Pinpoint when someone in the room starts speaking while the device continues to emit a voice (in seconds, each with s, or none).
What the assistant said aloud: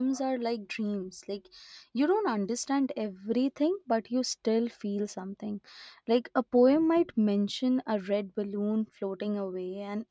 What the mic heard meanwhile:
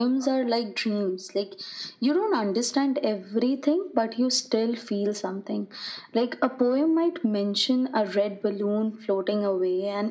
none